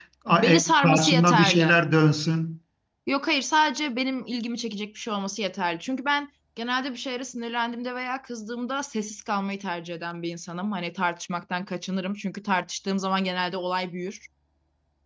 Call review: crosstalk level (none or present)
present